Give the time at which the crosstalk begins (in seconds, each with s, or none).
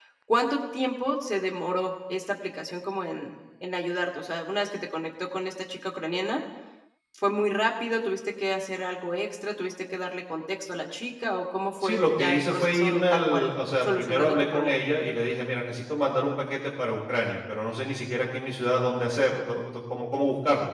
11.8 s